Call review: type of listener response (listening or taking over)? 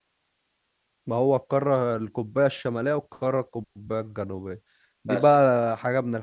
listening